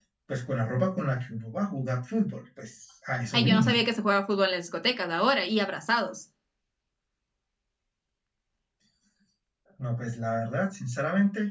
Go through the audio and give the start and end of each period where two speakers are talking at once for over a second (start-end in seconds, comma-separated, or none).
none